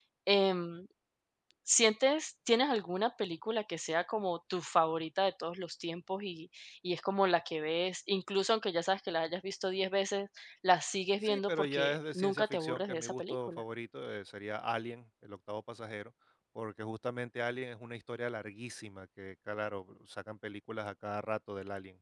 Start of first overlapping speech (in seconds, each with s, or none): 11.2 s